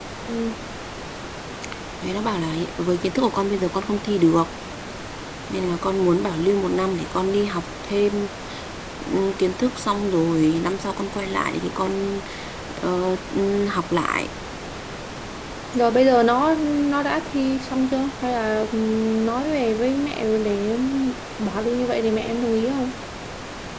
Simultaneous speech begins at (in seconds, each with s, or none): none